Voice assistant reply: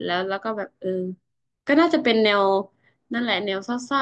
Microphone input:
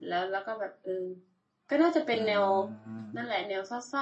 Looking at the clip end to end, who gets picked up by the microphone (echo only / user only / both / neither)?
both